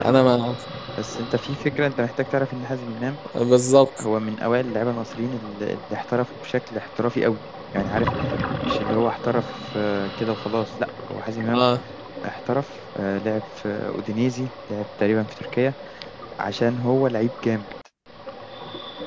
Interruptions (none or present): none